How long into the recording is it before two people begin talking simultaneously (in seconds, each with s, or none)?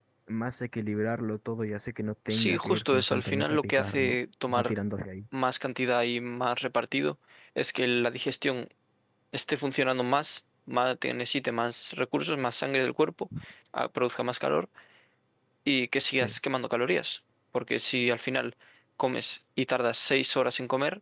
2.3 s